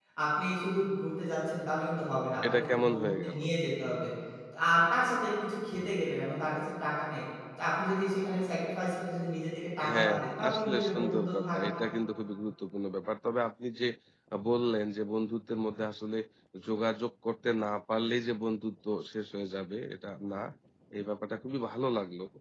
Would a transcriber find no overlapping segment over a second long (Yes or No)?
No